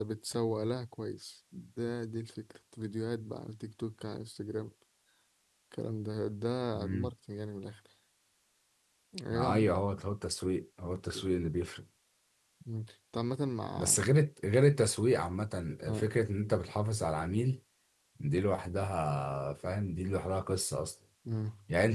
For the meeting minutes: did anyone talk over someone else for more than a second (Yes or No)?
No